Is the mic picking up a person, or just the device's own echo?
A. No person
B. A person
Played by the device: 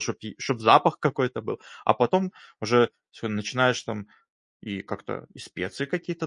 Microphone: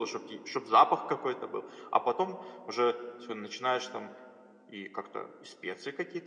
A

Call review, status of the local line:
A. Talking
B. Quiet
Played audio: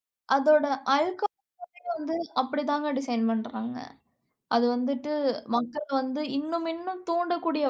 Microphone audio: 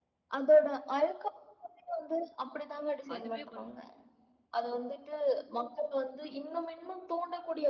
A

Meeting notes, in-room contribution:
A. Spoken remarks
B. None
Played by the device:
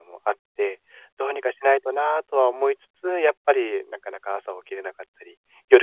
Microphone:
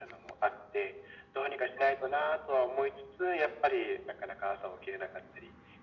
B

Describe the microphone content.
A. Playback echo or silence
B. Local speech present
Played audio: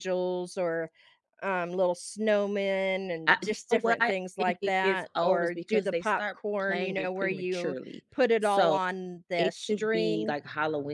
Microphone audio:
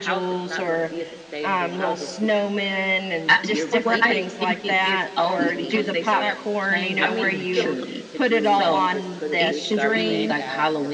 B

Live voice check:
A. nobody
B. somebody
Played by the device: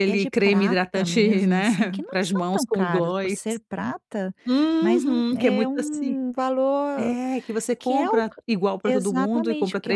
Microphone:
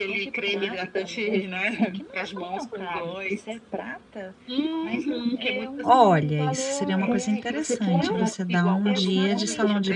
B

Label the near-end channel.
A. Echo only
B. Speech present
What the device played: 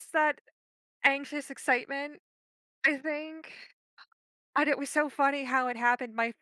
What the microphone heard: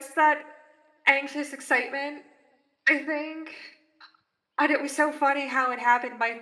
A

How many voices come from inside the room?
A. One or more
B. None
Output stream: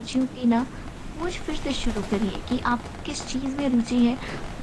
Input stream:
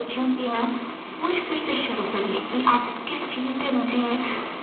B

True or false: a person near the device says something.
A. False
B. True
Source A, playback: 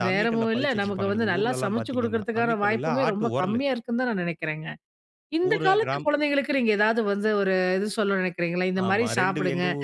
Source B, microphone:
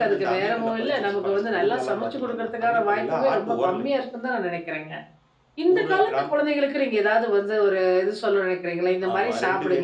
A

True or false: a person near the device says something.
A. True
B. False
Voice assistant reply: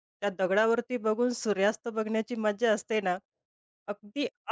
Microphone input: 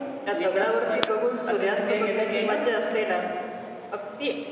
A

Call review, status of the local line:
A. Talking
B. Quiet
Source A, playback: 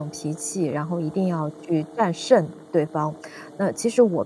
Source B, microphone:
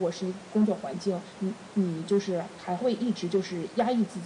A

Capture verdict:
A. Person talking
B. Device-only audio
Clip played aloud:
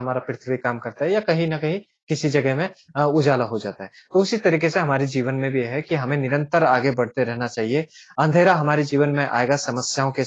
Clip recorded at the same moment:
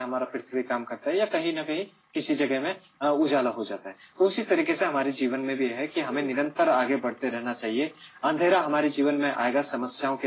A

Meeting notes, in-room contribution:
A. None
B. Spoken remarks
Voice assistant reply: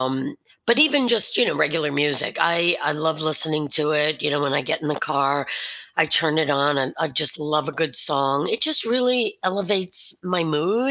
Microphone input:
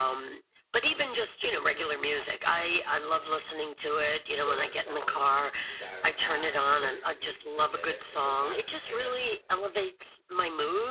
B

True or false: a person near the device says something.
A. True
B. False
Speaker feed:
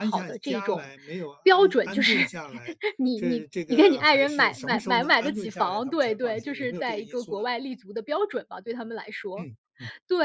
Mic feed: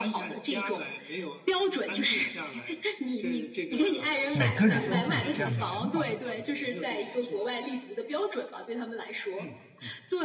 A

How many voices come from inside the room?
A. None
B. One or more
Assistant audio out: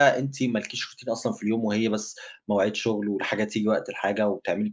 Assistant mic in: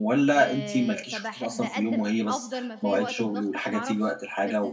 B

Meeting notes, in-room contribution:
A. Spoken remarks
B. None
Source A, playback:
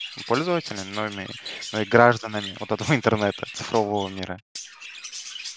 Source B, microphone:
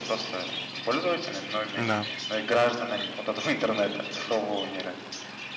A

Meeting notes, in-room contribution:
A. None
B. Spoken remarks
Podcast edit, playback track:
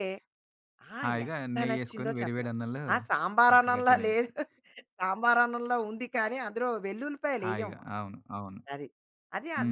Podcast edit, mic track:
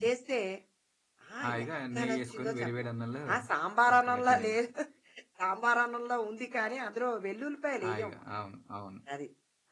A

